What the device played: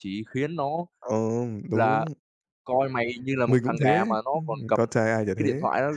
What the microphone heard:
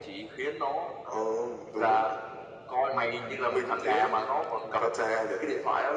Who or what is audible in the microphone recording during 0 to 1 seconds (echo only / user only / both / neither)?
echo only